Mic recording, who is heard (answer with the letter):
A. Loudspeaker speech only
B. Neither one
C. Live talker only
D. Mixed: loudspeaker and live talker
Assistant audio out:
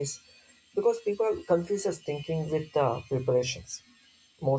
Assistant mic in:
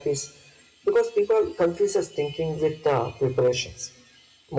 A